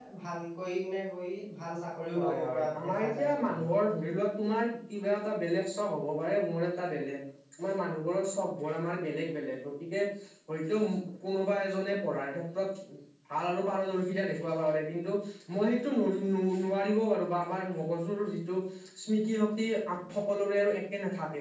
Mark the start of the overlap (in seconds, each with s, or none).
2.1 s